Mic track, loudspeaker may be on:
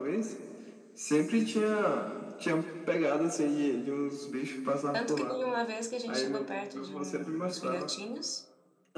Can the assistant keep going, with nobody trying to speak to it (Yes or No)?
No